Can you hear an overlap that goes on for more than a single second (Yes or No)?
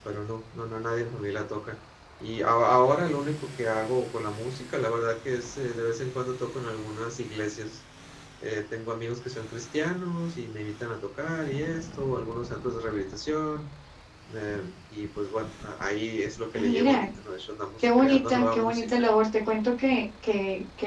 Yes